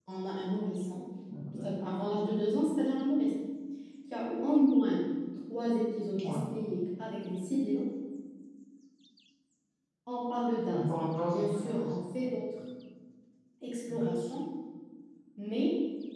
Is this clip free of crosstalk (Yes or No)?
No